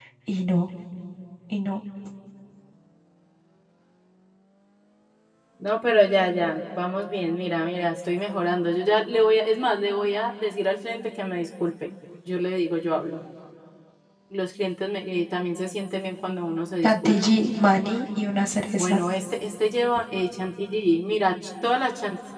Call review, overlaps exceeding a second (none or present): none